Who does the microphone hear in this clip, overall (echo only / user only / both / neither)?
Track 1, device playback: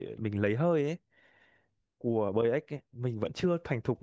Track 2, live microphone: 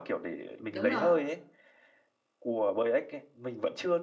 both